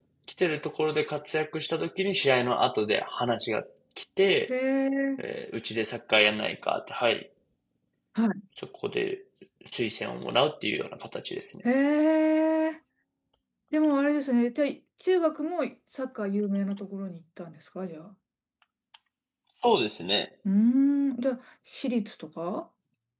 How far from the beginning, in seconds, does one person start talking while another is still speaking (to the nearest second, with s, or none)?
none